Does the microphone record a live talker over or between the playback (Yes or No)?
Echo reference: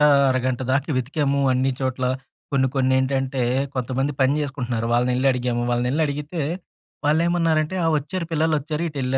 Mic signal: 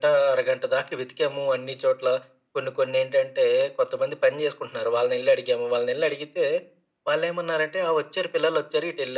No